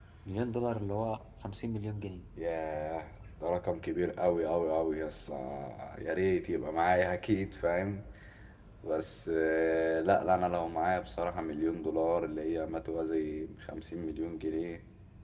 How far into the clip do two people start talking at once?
none

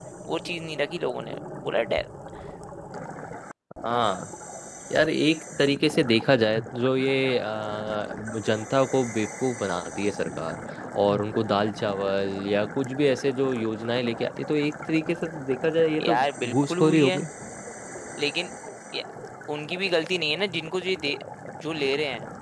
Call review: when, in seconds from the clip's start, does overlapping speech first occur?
16 s

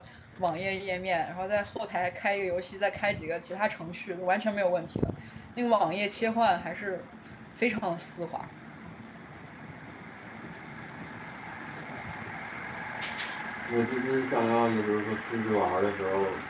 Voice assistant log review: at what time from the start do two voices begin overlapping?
none

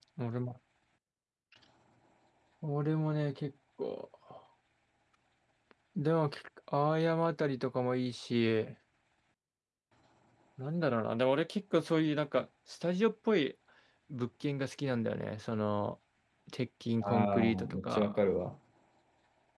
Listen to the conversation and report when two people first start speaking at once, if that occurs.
17 s

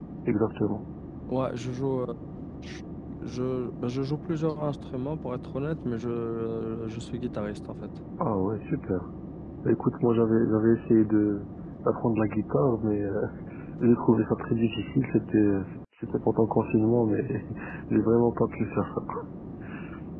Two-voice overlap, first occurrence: none

